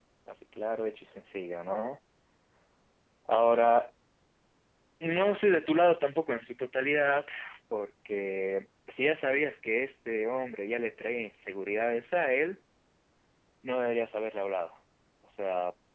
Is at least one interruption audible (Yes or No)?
No